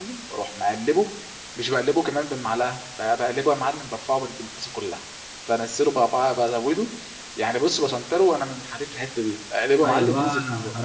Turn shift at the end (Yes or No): Yes